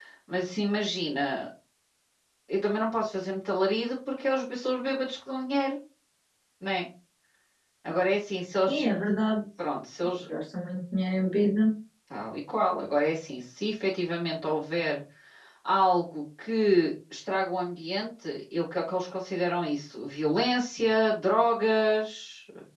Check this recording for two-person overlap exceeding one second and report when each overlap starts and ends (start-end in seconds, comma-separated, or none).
none